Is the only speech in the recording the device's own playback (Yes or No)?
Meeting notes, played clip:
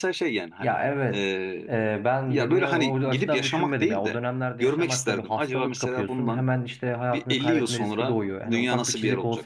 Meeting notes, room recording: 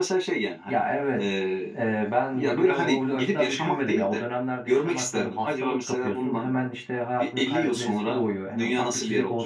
Yes